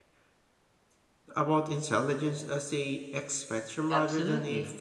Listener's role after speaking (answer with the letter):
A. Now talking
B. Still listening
A